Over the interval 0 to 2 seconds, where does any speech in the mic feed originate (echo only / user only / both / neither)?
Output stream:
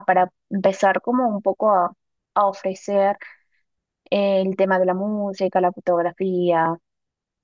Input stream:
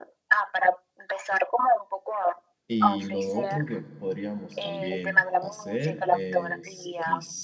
echo only